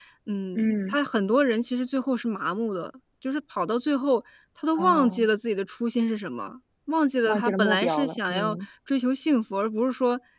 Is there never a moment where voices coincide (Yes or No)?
No